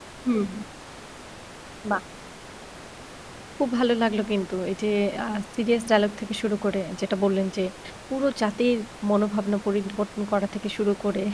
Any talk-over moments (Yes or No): No